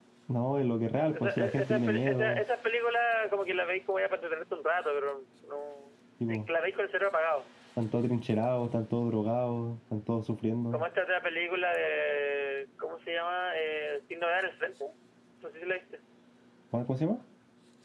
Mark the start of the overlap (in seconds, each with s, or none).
1.0 s